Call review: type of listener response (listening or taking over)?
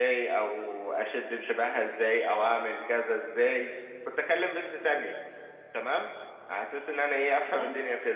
listening